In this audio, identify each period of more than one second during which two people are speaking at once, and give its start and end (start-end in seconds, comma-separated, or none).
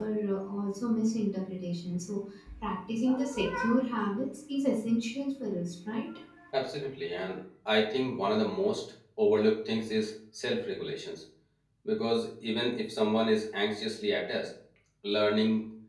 none